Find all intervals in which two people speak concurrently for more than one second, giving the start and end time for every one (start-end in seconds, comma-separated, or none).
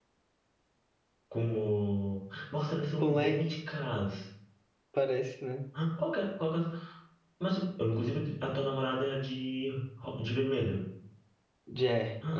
none